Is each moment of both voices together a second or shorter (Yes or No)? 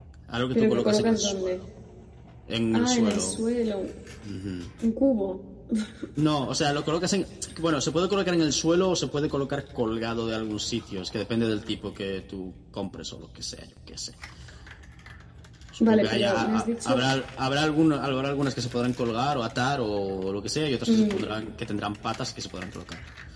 No